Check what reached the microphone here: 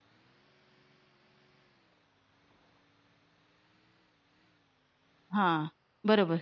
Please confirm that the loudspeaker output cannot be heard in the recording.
Yes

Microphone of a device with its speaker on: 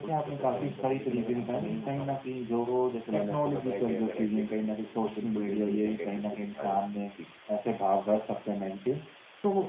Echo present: Yes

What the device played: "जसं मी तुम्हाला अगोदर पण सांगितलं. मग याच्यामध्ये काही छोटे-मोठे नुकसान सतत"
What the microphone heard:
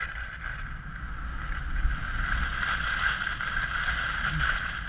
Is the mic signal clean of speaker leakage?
Yes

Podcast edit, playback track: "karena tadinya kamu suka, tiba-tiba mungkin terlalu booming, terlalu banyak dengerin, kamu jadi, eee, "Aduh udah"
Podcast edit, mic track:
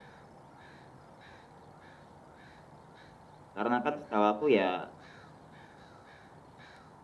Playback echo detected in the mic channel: No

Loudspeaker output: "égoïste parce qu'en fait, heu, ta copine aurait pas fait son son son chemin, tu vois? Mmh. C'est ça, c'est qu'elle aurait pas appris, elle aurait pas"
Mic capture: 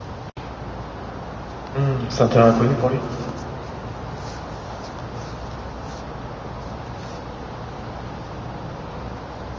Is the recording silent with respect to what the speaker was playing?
Yes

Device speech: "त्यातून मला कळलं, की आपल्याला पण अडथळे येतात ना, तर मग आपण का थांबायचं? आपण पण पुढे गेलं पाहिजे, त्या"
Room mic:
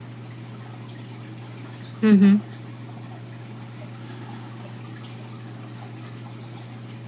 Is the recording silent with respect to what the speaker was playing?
Yes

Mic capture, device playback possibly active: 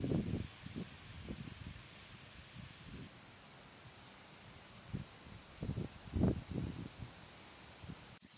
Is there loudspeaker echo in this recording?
No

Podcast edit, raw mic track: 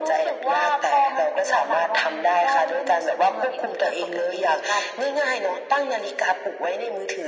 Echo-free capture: No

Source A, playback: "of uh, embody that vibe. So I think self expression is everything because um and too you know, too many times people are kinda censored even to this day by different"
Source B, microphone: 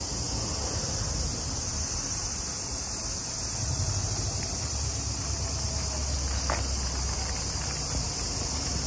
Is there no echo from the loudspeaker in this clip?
Yes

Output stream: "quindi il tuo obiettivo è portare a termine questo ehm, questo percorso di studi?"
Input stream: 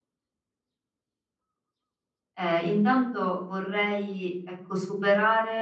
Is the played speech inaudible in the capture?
Yes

